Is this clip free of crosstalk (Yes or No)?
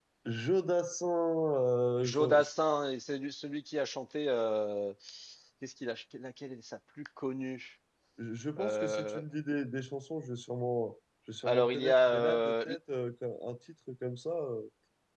No